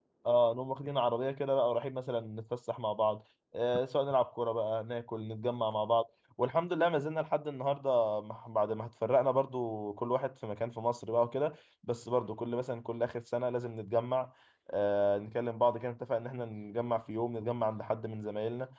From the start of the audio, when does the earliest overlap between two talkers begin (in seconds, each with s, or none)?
none